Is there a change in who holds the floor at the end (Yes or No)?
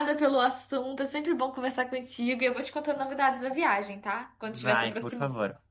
Yes